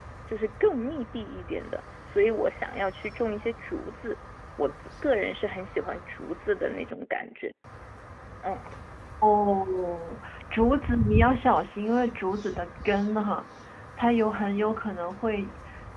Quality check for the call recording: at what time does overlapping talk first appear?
none

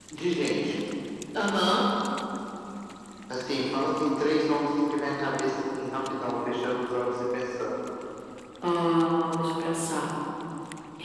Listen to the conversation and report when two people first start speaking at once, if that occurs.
none

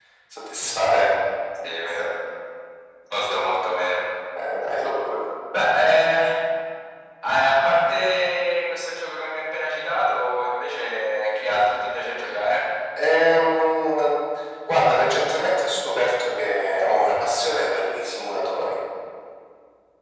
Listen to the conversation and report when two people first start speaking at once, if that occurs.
none

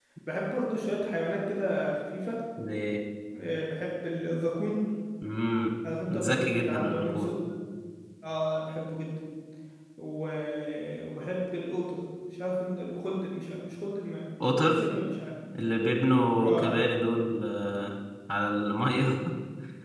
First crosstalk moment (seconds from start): 6.1 s

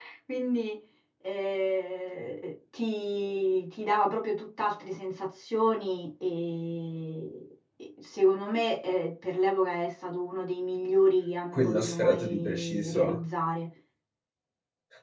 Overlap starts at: 11.5 s

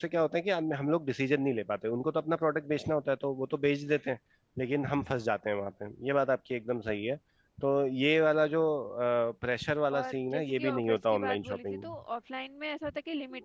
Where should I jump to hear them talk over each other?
10.0 s

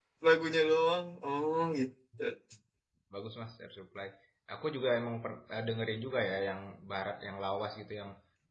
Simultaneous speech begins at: none

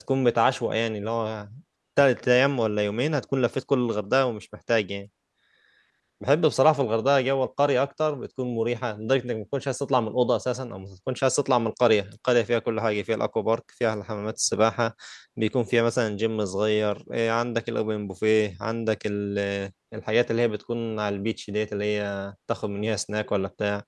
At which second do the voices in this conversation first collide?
none

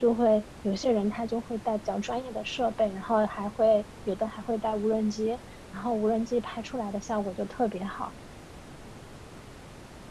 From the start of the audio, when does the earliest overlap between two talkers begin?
none

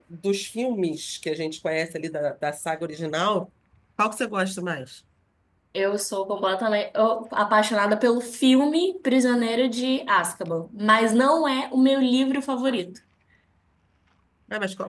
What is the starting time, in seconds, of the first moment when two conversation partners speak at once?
none

